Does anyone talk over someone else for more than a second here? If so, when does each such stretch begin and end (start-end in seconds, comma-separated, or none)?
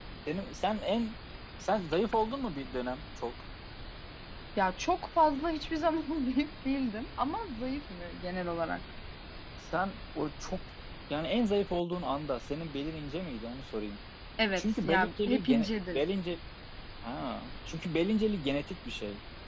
14.6-16.0